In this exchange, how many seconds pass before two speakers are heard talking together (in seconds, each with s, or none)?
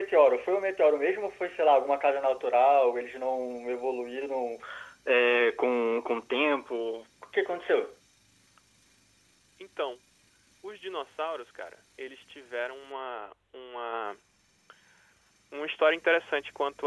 none